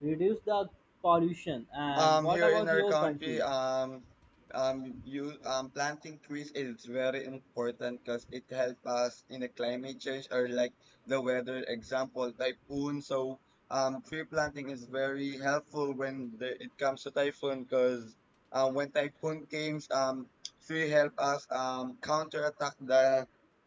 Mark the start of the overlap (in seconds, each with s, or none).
2.0 s